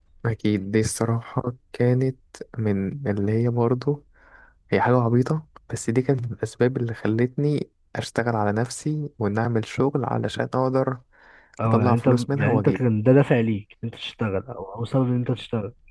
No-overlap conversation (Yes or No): No